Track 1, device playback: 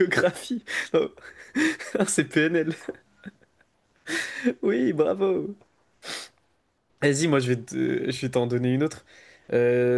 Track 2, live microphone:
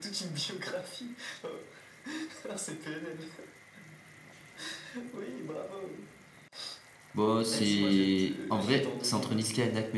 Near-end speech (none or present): present